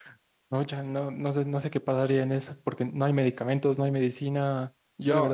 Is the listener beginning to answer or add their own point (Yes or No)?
No